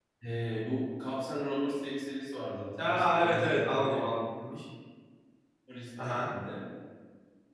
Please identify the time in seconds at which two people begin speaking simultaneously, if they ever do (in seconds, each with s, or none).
2.8 s